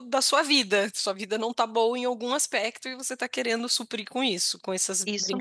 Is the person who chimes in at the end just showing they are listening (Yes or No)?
No